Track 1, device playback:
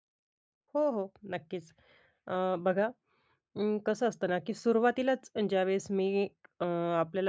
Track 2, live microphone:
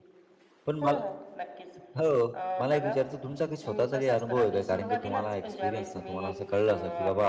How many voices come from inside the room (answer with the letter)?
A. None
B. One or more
B